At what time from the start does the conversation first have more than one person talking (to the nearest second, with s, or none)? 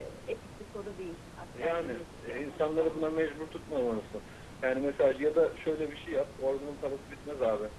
2 s